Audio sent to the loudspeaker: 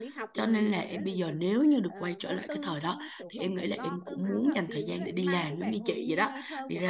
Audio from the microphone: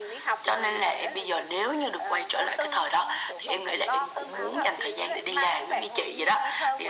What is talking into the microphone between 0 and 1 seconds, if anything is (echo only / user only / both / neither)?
echo only